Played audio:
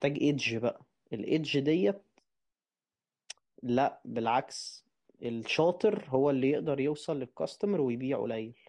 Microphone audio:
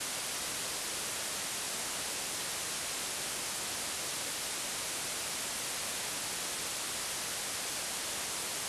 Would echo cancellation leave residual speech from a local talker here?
No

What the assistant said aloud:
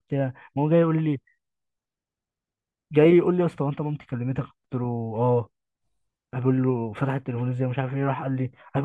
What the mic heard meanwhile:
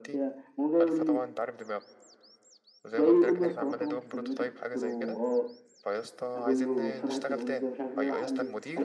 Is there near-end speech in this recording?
Yes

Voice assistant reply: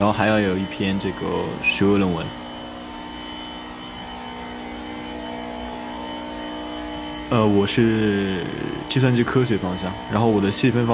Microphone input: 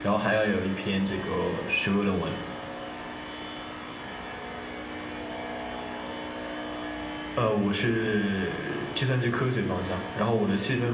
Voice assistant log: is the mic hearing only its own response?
Yes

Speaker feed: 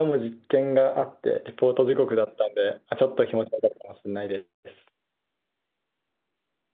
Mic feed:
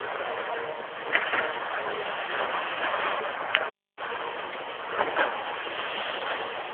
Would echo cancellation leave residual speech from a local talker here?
No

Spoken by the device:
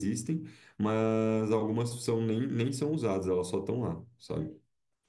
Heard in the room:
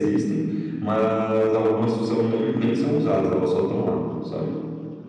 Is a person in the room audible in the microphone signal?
No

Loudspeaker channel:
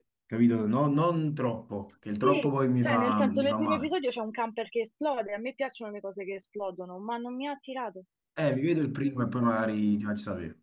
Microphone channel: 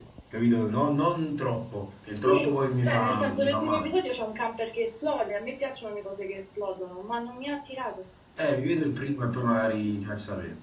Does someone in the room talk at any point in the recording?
No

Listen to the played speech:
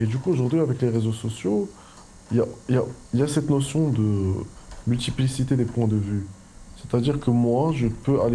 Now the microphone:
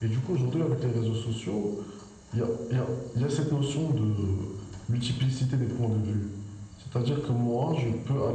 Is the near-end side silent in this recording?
Yes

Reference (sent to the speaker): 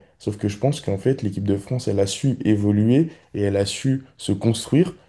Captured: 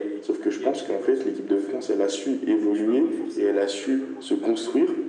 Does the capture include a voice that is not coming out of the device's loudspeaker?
Yes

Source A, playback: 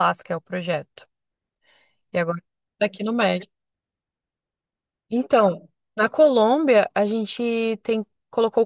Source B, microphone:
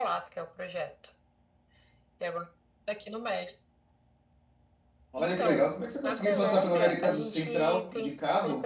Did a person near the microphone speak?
Yes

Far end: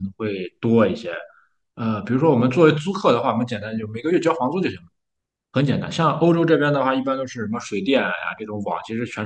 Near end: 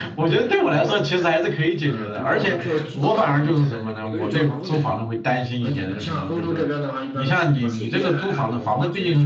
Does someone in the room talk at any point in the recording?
Yes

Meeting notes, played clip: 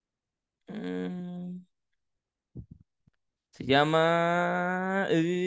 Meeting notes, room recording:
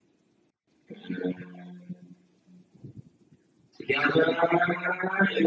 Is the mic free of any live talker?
Yes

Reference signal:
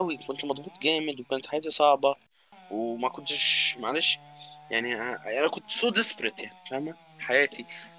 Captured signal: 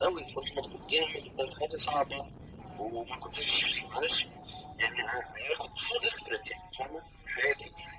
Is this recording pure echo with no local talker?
Yes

